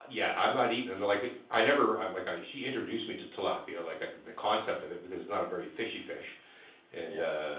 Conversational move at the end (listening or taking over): listening